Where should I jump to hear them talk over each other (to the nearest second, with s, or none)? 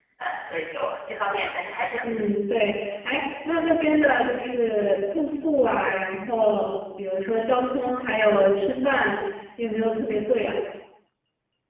none